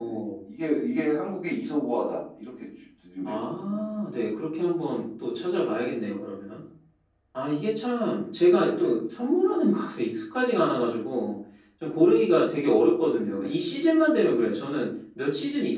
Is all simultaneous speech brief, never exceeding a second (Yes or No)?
Yes